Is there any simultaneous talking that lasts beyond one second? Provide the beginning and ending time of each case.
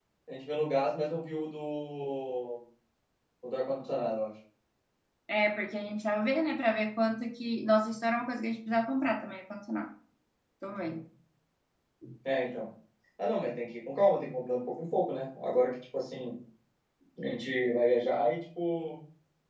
none

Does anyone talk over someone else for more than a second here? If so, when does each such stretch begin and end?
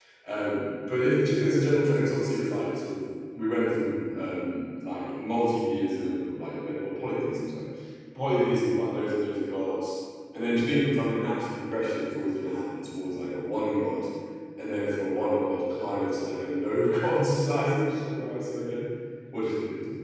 none

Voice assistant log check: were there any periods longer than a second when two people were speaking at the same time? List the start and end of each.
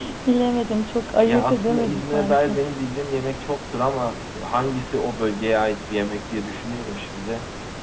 1.2-2.6

